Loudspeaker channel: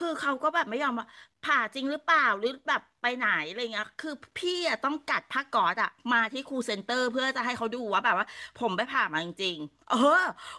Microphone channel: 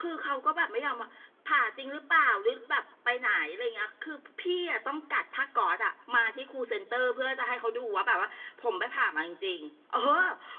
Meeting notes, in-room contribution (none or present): none